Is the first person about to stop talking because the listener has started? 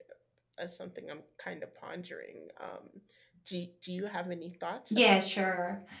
Yes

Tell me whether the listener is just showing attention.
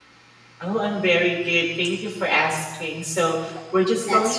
Yes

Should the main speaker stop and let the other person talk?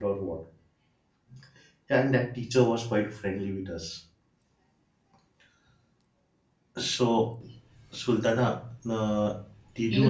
Yes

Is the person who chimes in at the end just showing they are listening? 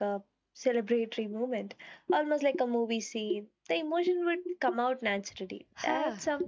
No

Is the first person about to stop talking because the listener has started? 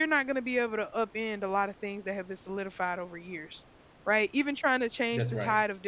No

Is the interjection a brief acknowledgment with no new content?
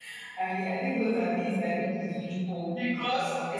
No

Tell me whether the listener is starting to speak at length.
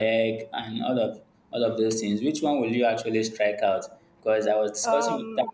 No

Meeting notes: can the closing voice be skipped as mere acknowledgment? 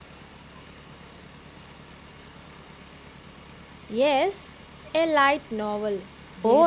No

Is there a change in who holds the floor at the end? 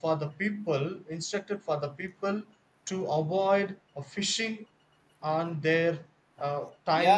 Yes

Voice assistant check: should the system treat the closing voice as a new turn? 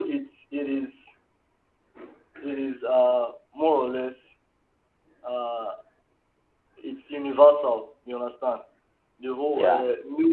No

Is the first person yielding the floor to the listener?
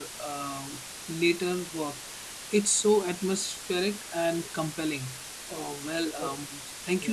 No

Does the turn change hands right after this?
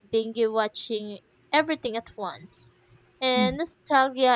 No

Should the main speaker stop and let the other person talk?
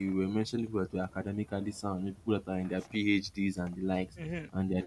Yes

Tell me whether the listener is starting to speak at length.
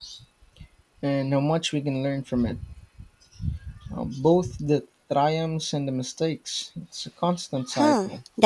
Yes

